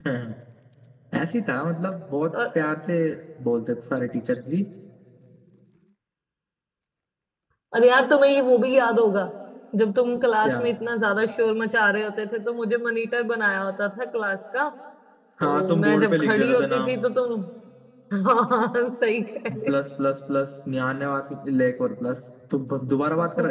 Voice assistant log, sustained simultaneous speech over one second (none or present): present